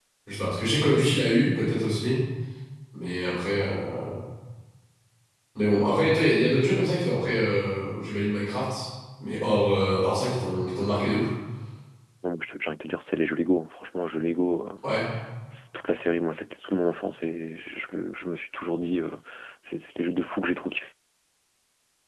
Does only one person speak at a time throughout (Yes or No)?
Yes